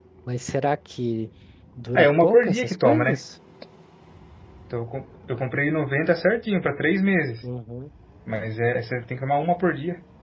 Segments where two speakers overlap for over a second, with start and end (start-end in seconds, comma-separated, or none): 2.0-3.2